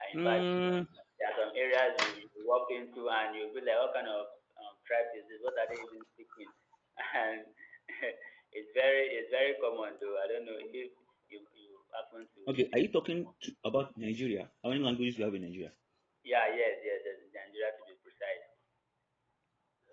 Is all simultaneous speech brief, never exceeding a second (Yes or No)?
Yes